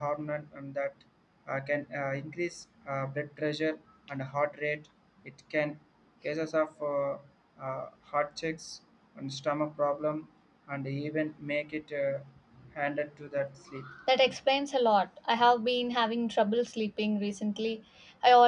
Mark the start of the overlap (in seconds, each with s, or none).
none